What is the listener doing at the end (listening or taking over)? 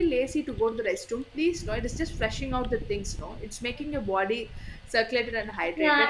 taking over